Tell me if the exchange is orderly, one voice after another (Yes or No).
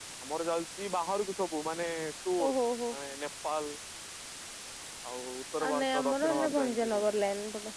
No